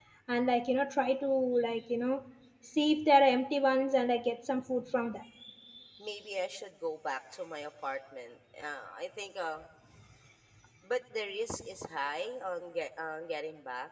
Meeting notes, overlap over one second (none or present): none